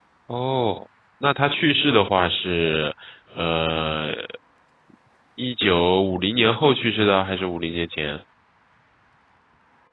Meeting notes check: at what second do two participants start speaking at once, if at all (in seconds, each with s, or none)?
none